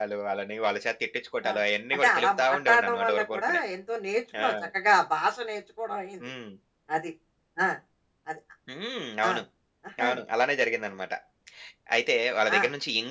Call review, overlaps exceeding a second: present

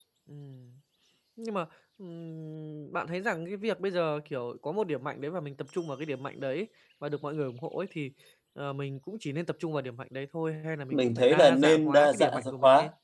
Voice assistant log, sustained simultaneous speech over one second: present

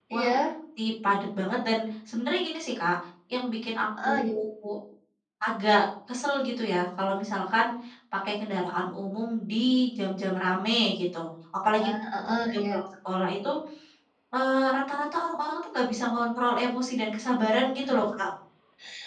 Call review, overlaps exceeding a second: none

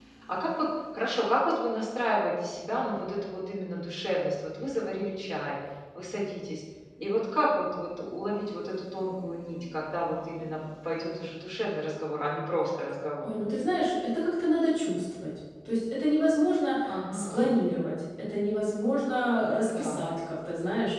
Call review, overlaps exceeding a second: none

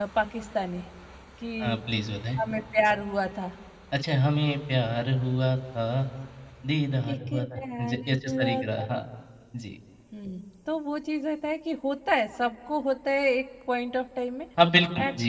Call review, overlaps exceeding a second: present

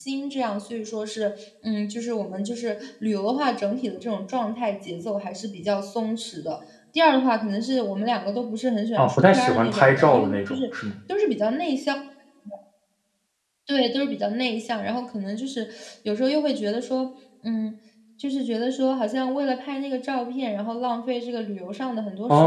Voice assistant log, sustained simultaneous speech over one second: present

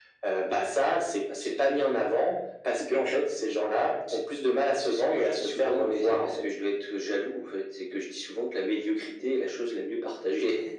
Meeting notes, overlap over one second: present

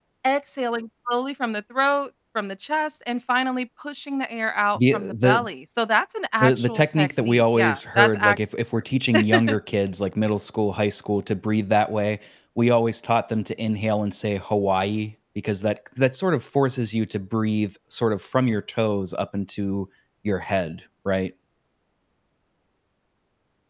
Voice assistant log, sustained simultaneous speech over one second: present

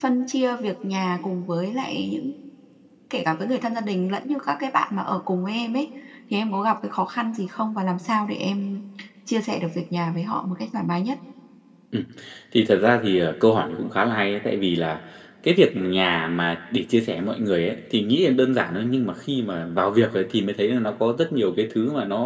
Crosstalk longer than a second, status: none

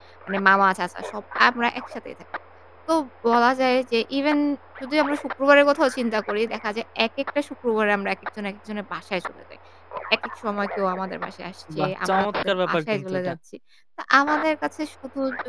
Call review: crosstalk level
present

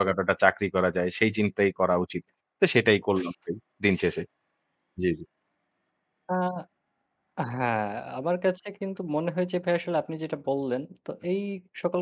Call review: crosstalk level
none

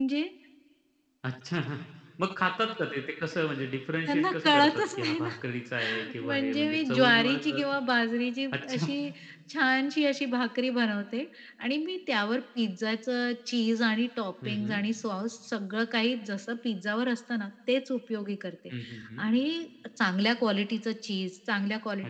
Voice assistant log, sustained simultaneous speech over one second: present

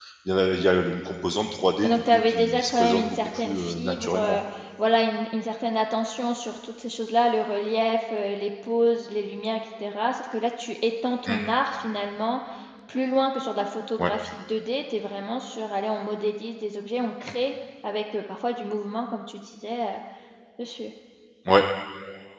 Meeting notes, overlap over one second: present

